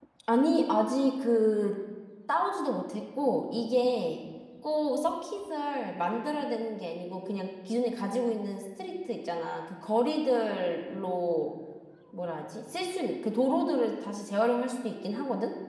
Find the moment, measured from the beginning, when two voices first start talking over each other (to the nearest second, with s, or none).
none